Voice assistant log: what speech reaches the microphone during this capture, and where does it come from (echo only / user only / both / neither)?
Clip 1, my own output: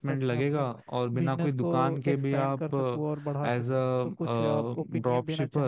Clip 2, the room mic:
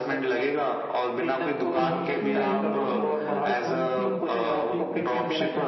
both